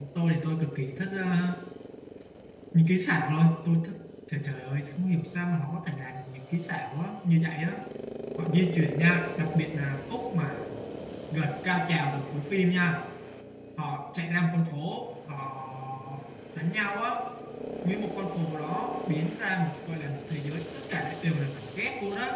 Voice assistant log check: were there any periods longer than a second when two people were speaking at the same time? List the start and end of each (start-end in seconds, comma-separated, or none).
none